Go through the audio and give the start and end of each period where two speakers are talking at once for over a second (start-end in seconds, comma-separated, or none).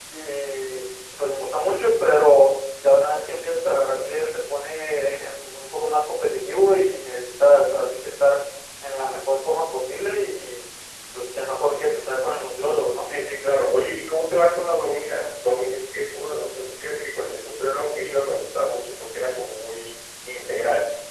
none